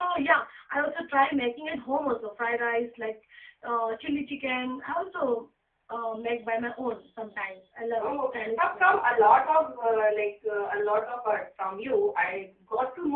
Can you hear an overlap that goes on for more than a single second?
Yes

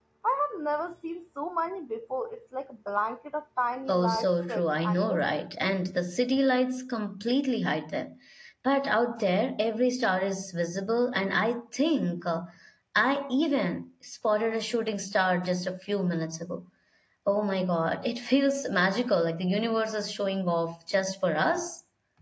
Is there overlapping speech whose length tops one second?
Yes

